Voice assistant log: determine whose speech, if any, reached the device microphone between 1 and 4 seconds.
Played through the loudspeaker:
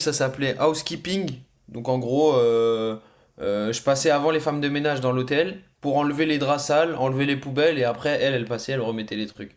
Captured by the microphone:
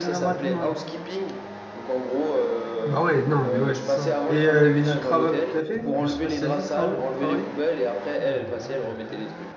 both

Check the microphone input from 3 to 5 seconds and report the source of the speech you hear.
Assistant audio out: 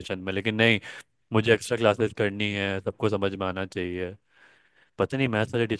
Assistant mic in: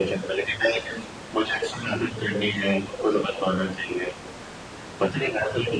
echo only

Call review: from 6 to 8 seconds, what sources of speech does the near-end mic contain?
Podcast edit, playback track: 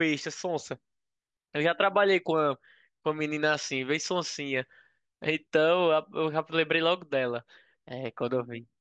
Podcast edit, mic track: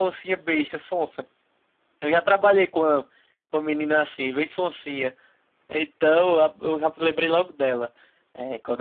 echo only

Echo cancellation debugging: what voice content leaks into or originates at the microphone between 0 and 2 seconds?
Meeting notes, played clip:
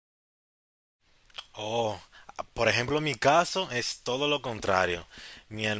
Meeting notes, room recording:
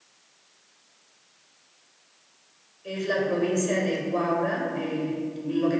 neither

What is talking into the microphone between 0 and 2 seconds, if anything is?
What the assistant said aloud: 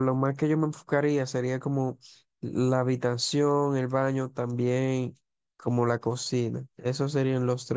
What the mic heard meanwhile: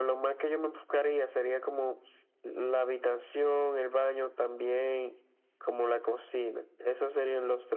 echo only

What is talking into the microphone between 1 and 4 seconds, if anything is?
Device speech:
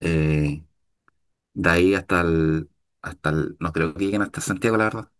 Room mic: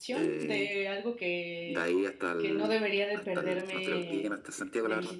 both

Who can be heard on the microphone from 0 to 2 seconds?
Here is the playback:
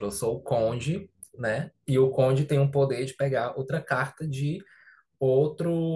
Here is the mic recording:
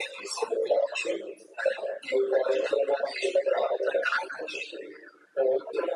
echo only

